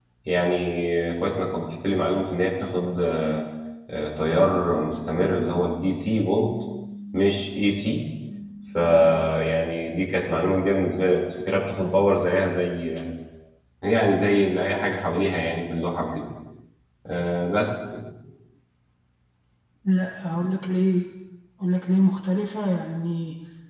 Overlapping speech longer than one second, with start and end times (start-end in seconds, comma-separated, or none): none